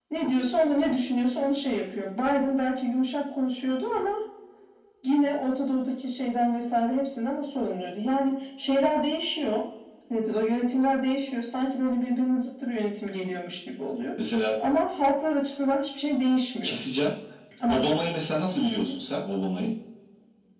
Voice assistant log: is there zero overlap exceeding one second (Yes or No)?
Yes